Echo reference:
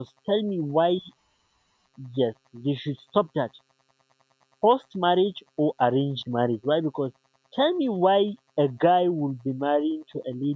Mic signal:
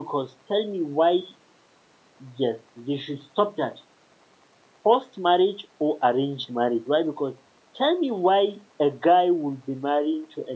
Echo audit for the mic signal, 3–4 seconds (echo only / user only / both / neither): echo only